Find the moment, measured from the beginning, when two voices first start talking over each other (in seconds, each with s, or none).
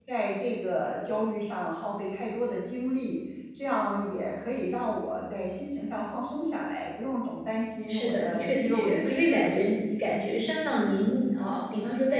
7.9 s